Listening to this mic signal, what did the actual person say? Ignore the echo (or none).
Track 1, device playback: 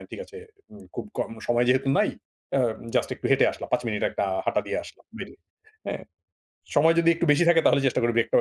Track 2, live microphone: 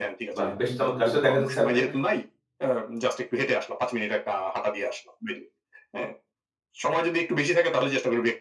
বাহ! বেশ চমৎকার! আসলে দেখা যাচ্ছে আপনি